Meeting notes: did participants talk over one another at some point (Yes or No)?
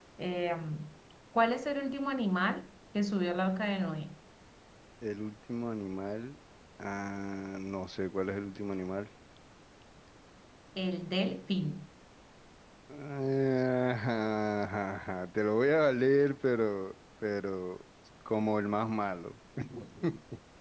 No